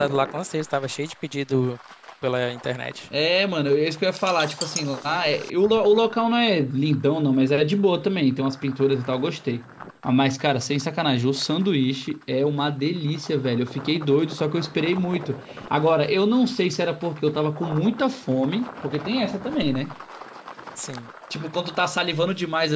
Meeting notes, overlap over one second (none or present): none